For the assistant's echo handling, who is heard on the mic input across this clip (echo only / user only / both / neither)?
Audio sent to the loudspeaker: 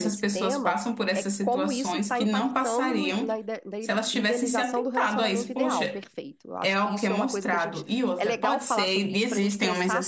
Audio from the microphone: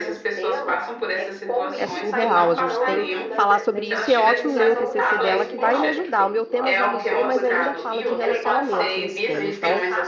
both